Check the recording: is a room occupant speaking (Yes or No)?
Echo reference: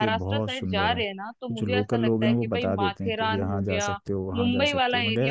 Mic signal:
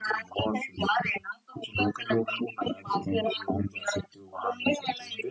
No